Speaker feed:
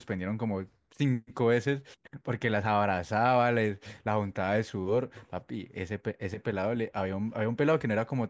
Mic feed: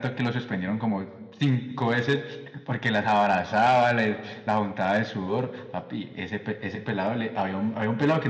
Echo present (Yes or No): Yes